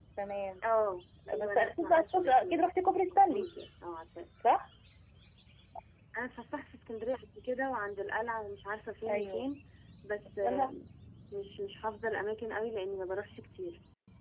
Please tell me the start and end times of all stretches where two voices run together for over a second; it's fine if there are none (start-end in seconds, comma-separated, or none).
1.4-2.7